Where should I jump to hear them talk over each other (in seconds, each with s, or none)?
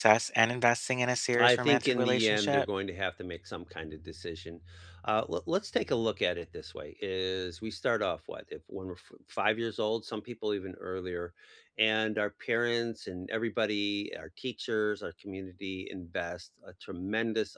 1.3 s